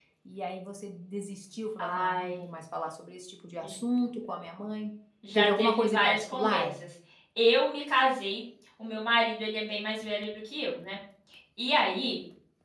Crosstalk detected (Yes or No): Yes